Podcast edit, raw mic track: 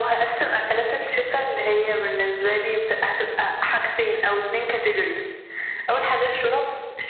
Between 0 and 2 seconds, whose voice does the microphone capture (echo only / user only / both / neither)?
echo only